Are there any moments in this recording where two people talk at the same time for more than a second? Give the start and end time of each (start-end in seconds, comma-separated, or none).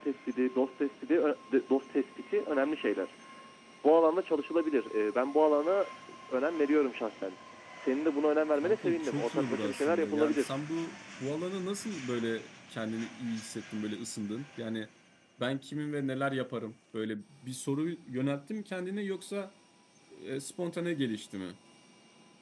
8.6-10.5